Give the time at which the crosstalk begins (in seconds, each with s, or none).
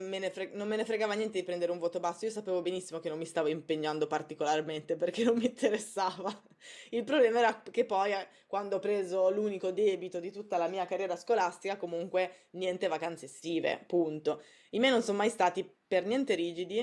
none